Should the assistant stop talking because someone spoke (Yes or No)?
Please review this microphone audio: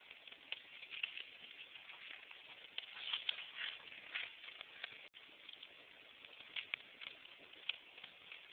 No